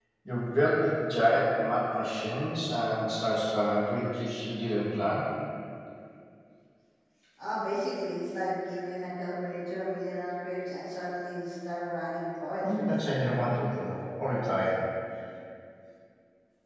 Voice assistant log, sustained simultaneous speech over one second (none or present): none